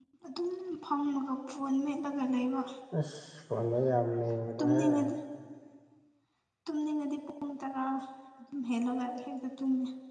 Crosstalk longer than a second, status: none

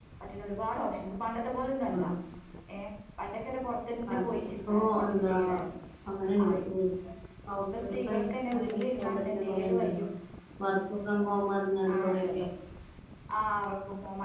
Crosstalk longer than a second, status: present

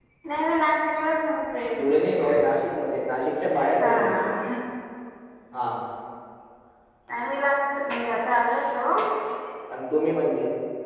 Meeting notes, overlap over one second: none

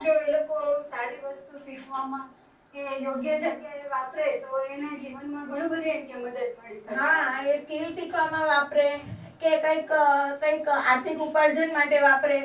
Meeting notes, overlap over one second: none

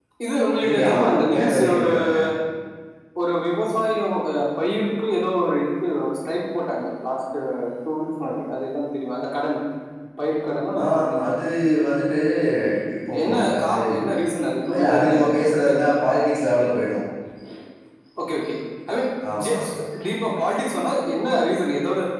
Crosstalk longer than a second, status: present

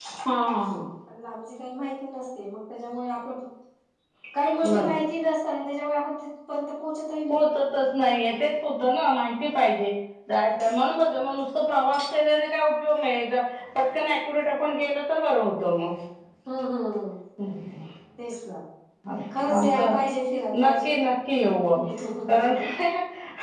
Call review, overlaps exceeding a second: none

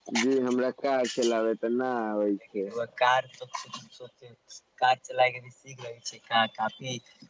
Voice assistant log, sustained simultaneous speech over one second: none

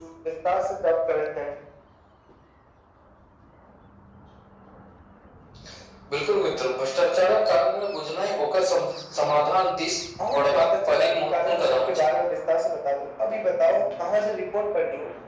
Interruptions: present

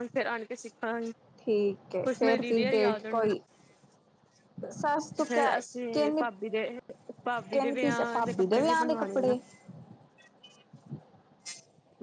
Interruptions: present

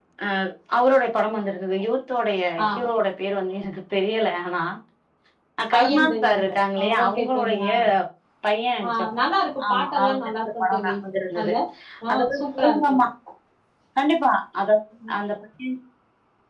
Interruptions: present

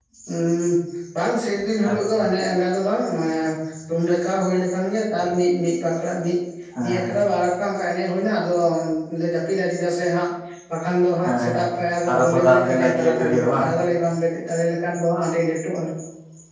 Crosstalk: present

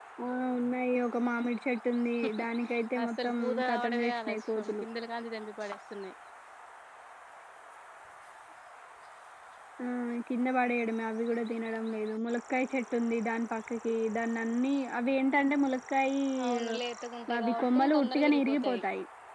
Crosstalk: present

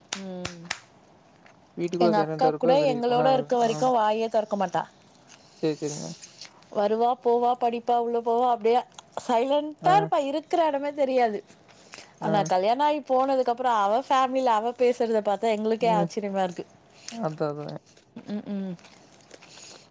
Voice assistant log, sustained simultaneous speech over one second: present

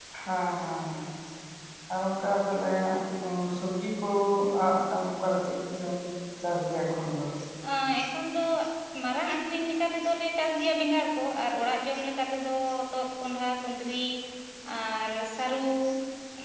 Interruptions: none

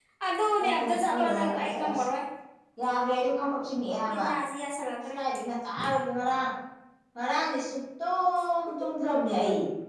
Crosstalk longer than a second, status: present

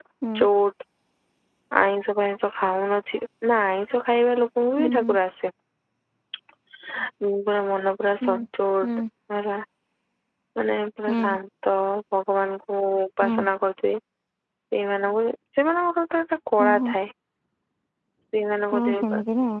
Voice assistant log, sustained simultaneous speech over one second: none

